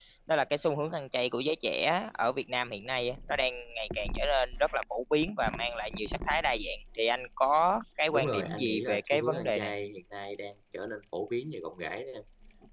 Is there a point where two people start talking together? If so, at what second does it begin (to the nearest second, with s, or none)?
8 s